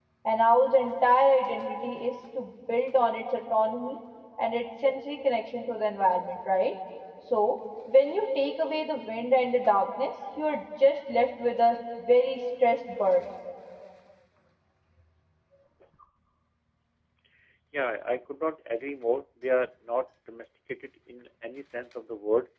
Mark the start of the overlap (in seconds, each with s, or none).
none